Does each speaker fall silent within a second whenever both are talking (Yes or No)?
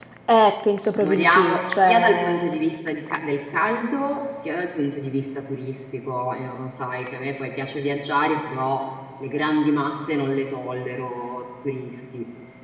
No